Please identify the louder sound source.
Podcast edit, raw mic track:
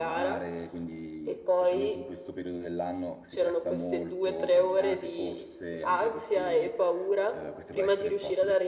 echo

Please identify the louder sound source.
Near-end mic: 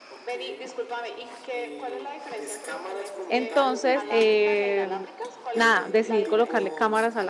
user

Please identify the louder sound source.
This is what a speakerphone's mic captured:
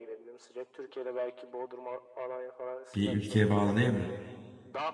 user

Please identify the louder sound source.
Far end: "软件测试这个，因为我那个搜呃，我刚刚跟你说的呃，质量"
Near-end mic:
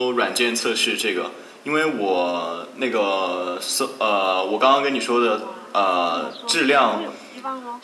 echo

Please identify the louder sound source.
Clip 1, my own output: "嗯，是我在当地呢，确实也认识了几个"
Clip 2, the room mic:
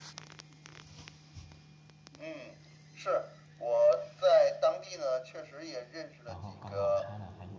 echo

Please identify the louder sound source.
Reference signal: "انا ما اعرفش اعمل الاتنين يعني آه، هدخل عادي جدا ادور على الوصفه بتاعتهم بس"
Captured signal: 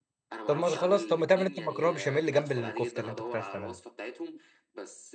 user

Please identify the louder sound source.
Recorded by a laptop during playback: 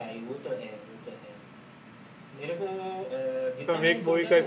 user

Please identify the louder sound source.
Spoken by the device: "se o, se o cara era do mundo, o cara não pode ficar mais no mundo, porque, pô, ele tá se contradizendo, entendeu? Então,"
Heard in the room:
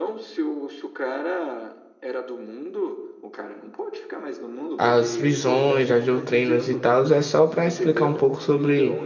user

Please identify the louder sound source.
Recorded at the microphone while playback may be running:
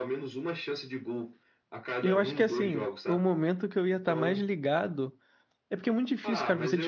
user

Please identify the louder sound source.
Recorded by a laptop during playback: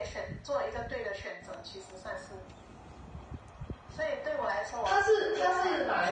user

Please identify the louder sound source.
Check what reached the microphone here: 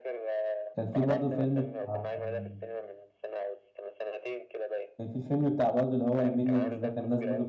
user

